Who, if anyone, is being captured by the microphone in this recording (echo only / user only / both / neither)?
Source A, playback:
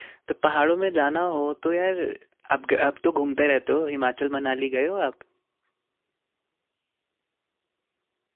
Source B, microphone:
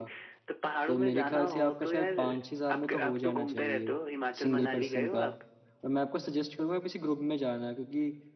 both